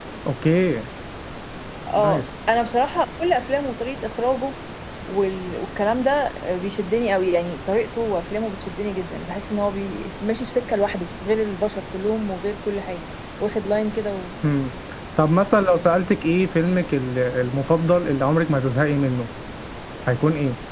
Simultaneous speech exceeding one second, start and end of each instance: none

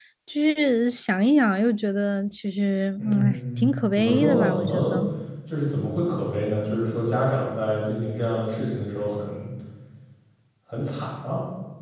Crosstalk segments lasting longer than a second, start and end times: 3.0-5.0

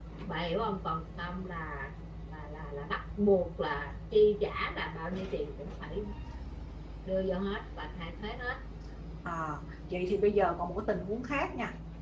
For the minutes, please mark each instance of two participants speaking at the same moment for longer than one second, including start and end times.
none

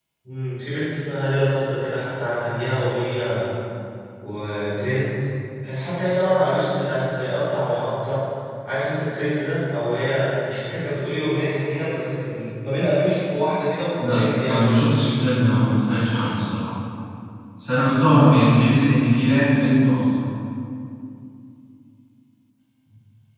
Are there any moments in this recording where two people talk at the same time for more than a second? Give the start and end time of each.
14.0-15.3

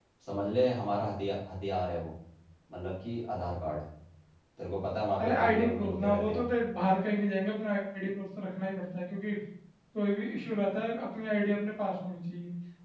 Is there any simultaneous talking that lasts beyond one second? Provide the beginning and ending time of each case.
5.2-6.5

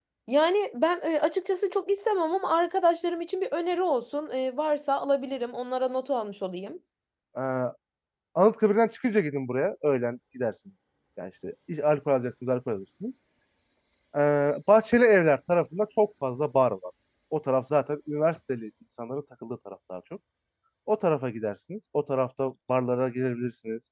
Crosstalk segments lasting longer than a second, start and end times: none

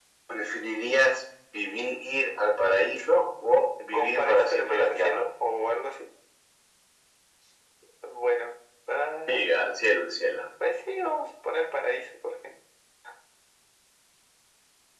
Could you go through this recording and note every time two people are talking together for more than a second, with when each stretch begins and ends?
3.9-5.2

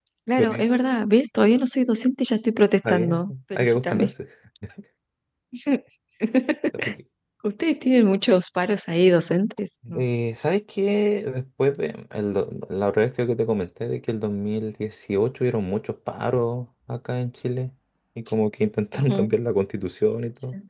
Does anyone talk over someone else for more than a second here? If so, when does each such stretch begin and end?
2.9-4.1

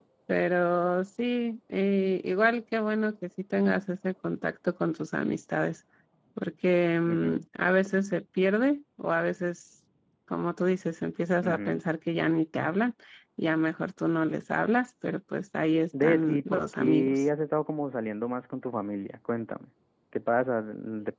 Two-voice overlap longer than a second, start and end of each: 16.0-17.2

